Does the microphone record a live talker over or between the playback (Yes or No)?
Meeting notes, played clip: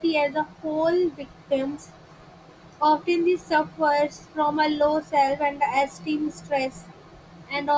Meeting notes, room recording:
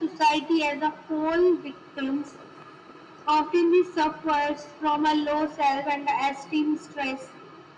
No